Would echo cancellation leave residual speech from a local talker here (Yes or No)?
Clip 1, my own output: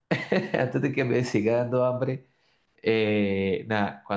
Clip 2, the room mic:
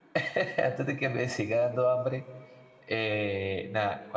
No